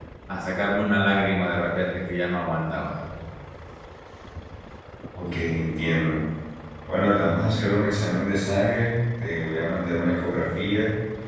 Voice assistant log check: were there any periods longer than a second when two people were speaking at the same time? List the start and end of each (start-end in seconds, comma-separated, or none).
none